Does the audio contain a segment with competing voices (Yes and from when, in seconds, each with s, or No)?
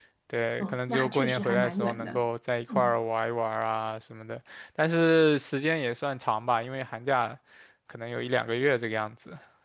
Yes, from 0.6 s